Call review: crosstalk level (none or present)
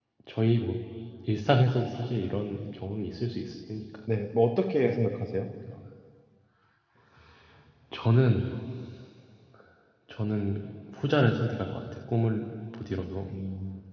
none